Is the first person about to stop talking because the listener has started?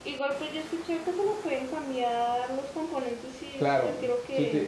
Yes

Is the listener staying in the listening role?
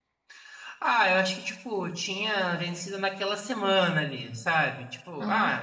Yes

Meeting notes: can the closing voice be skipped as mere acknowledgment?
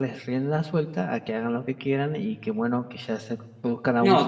No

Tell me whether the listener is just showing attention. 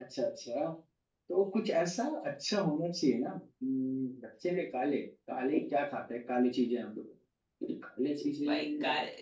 No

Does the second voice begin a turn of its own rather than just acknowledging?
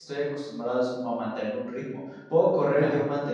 No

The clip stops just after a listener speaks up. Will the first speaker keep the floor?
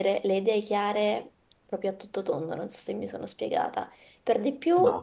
Yes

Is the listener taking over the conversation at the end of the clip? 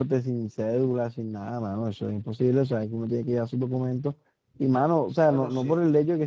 No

